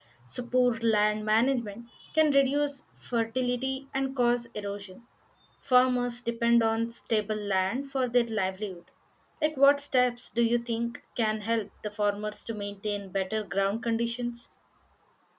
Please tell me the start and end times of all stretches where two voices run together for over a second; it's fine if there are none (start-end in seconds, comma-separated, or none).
none